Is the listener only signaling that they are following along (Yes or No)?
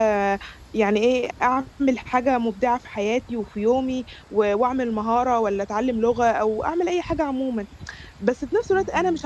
Yes